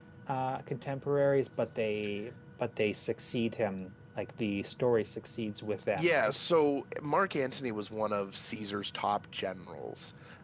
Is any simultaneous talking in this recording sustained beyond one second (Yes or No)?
No